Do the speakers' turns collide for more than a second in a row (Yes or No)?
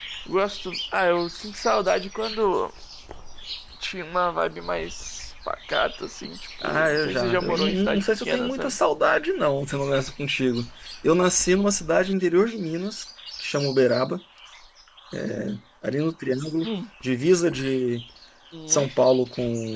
Yes